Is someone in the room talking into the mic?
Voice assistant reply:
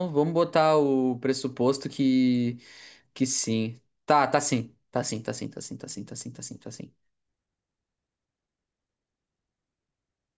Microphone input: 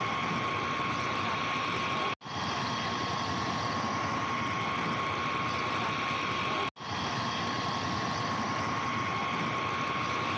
No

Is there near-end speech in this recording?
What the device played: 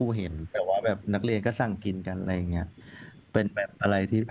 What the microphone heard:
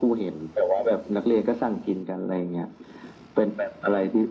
No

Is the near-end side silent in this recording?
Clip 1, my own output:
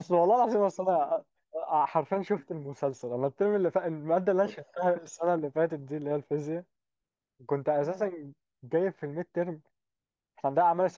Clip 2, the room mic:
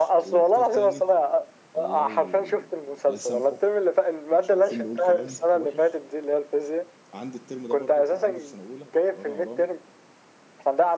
No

